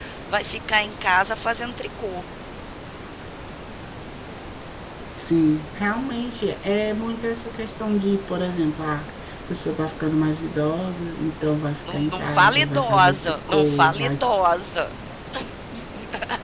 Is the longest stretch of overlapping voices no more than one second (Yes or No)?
No